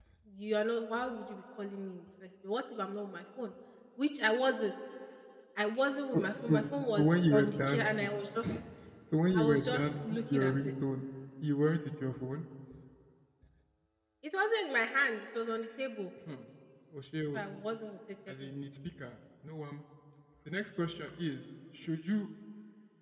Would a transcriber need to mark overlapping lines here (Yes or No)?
Yes